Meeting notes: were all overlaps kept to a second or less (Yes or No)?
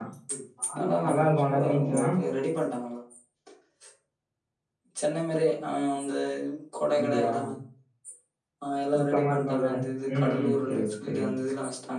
No